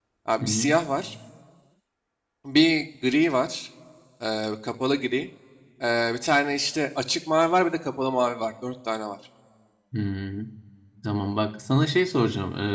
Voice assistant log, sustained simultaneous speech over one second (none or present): none